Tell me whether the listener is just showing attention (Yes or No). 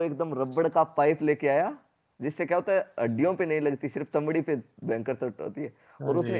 Yes